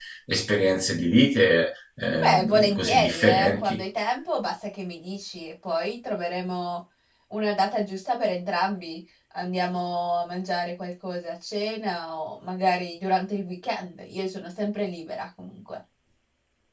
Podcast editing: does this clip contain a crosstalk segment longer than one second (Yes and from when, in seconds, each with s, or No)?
Yes, from 2.2 s